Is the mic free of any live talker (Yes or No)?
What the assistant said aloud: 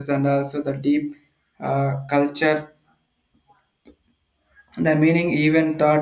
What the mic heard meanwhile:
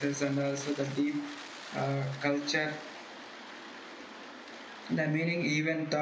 Yes